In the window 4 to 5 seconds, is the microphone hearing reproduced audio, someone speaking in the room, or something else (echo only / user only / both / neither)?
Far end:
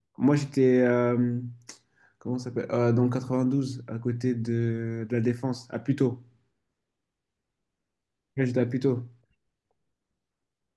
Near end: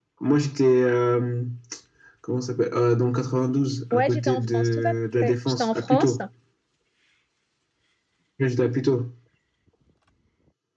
both